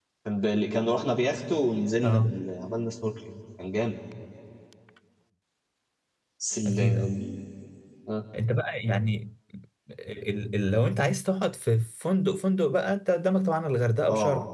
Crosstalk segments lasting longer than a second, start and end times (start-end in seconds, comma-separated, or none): none